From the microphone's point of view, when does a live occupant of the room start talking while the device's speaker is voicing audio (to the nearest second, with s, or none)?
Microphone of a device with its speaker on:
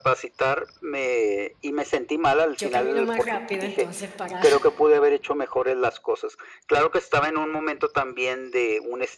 3 s